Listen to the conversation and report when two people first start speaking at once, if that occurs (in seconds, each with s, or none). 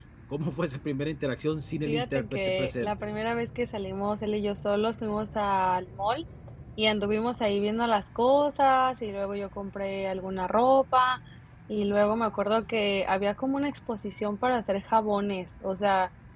1.9 s